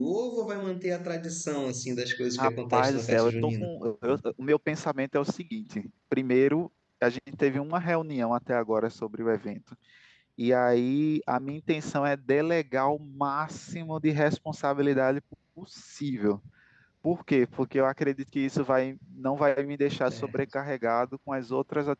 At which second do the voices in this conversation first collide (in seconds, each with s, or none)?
2.4 s